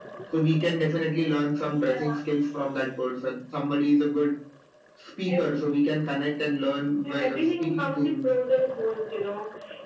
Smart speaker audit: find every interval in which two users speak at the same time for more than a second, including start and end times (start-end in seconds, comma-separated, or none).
7.0-8.3